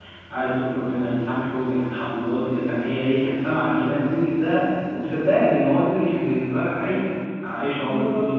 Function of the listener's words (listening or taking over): listening